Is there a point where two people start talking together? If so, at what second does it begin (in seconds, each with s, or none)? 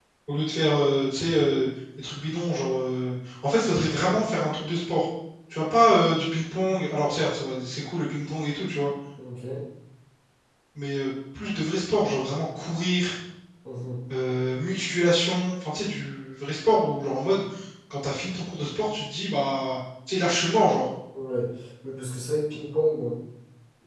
none